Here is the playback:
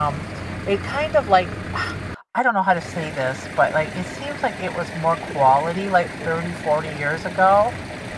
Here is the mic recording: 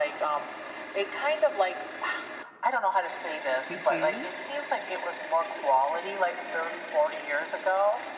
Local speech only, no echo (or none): Mhm.